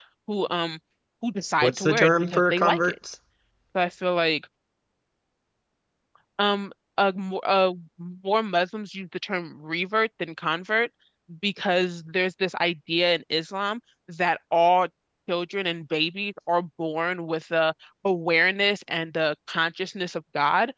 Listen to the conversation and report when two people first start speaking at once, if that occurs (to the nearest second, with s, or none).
2 s